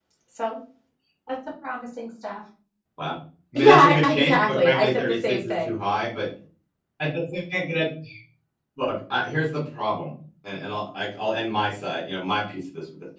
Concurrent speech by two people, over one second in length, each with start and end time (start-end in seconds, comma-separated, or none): 3.5-5.7